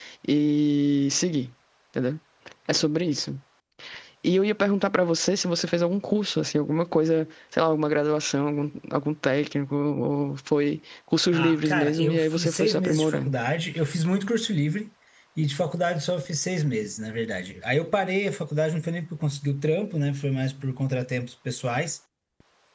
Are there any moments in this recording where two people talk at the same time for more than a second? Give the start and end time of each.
11.3-13.3

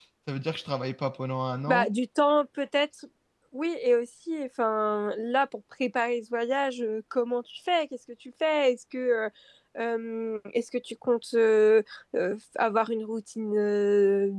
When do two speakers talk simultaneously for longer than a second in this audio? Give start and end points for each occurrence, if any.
none

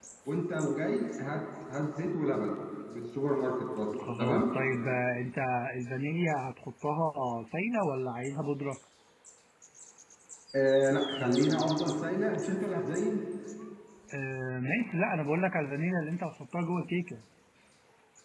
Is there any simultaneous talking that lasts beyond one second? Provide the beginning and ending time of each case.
none

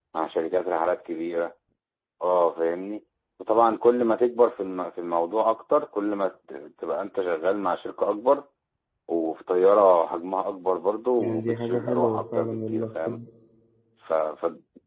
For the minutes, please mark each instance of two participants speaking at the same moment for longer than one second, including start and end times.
11.2-13.2

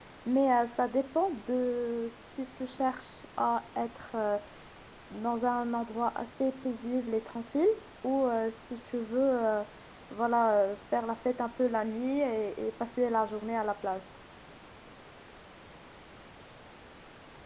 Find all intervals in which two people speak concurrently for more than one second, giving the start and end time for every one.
none

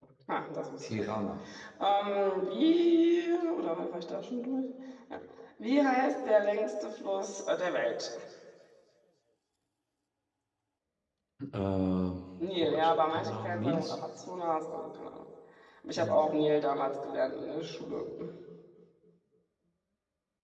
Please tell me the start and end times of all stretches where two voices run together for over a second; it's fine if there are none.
12.5-13.9

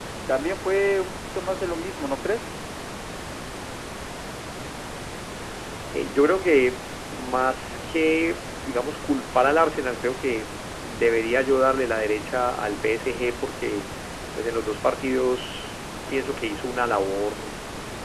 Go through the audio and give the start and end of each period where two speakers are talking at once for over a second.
none

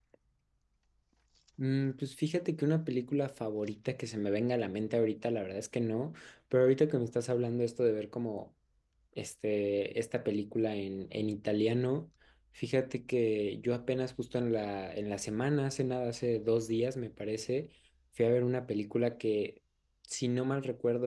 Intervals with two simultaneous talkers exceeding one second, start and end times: none

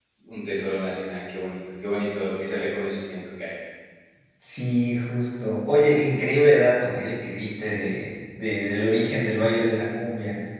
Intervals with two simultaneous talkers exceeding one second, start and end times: none

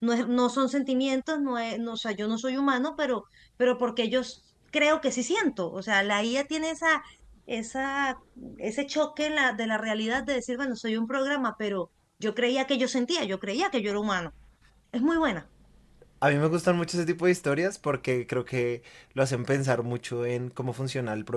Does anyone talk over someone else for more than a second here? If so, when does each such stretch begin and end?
none

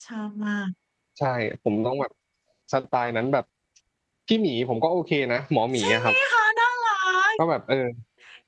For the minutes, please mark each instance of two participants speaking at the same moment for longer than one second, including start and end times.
none

